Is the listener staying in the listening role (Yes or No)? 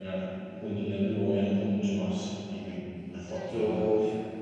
No